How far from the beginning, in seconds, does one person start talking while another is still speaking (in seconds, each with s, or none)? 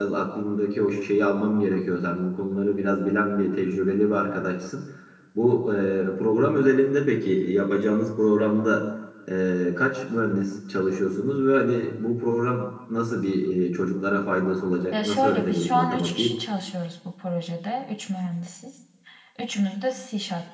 14.9 s